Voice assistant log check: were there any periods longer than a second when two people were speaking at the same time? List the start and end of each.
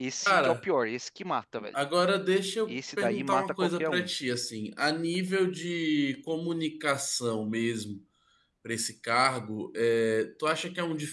2.7-4.1

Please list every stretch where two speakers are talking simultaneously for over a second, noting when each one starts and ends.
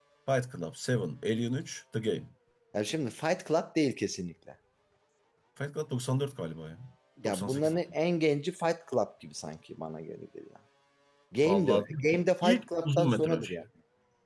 11.4-13.5

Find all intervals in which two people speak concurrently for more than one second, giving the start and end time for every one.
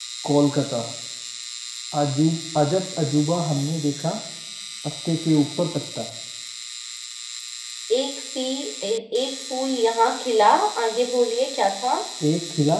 none

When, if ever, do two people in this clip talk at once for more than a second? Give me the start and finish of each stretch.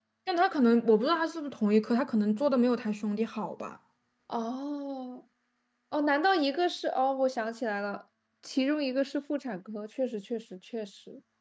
none

